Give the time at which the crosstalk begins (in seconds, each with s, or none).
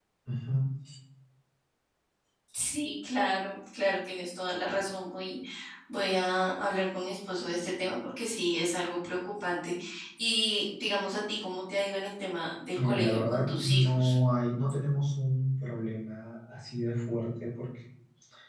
12.8 s